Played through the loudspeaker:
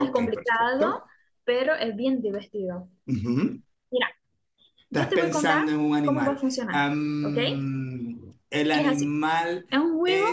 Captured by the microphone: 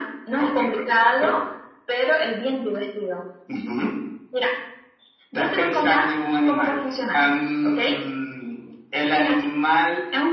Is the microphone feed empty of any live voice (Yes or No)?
Yes